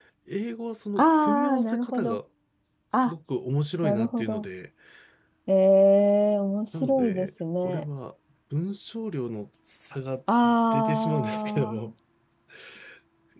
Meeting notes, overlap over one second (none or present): present